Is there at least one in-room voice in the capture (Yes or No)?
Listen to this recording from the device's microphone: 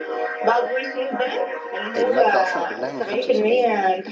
Yes